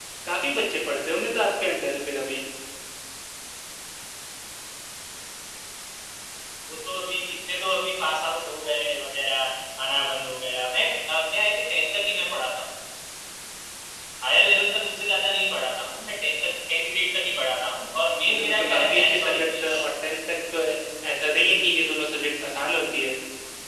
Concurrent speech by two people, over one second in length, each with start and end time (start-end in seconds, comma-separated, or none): 18.2-19.8